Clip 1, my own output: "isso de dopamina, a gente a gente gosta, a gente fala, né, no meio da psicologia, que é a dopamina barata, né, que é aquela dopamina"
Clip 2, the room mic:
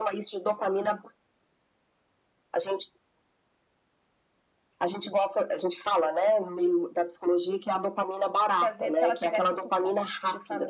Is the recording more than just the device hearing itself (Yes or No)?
Yes